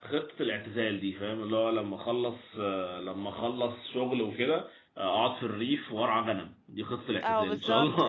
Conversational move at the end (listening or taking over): taking over